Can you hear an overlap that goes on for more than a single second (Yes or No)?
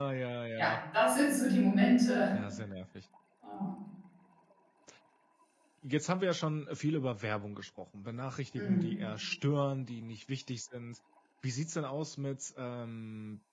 No